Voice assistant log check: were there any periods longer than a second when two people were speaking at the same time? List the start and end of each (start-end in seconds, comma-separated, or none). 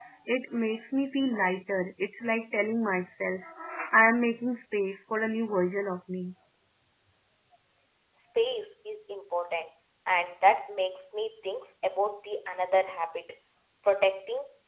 none